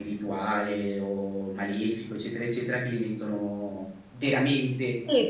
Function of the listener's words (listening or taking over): taking over